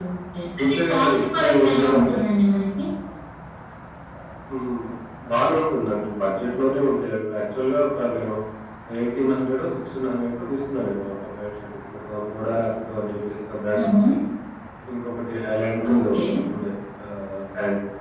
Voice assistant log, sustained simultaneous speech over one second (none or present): present